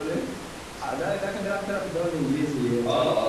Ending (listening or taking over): taking over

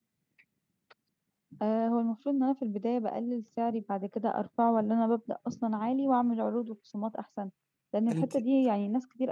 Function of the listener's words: listening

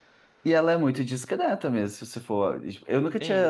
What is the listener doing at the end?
taking over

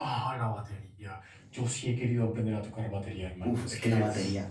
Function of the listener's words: taking over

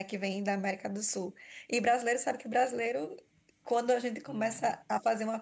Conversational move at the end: listening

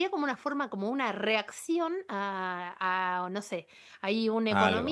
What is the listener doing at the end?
listening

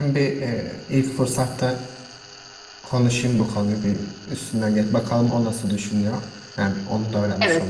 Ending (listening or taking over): taking over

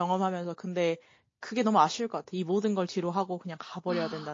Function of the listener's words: taking over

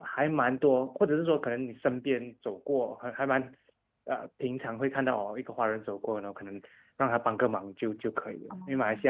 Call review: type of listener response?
listening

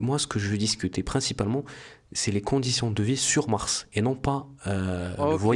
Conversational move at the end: taking over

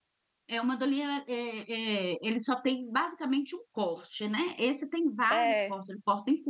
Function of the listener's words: listening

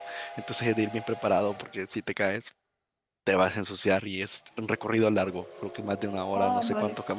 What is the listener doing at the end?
listening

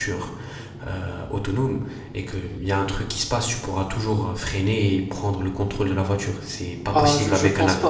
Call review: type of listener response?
taking over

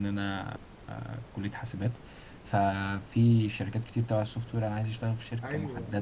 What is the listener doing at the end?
taking over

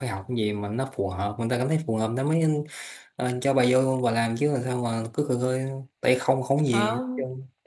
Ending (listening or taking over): taking over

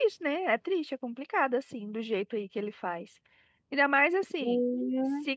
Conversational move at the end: listening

